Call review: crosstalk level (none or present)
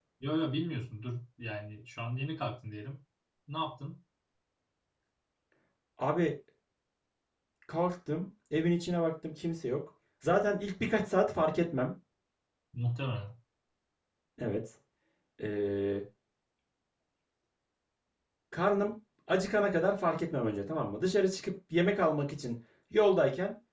none